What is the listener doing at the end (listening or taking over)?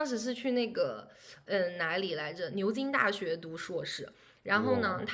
listening